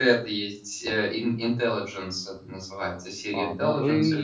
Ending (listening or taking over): taking over